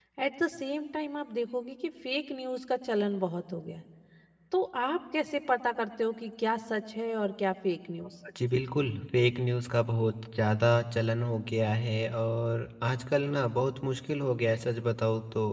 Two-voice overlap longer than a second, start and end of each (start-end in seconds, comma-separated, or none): none